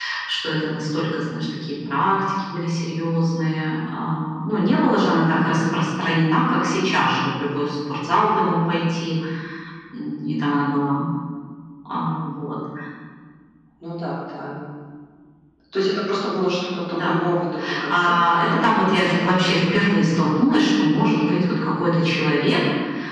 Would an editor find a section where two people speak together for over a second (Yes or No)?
Yes